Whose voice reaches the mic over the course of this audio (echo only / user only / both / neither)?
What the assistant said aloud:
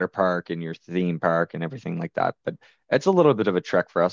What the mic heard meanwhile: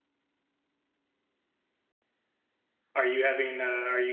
user only